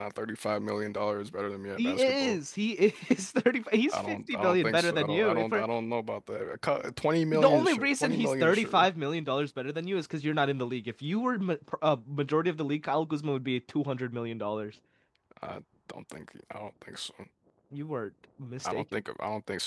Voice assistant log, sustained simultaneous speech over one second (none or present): present